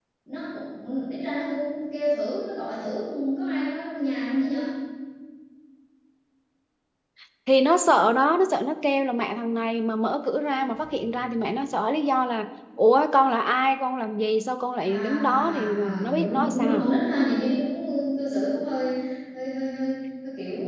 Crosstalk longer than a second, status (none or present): present